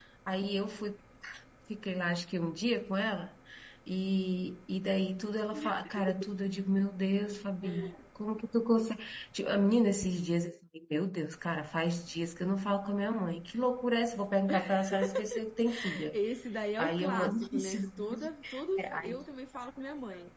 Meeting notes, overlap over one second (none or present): present